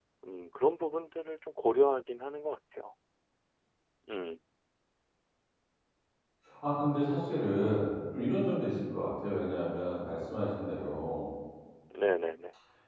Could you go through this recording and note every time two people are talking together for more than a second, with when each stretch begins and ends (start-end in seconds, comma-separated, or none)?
none